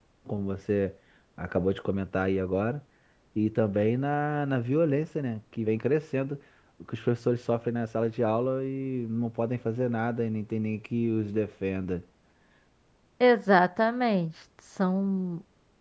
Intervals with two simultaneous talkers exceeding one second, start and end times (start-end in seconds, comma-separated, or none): none